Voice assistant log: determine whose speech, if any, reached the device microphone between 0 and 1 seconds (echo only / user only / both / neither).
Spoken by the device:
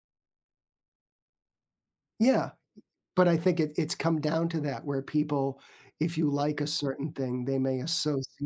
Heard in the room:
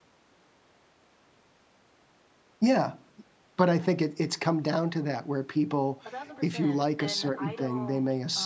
neither